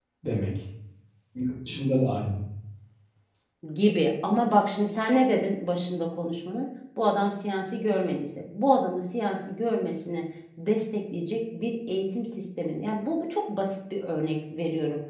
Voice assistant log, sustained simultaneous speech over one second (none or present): none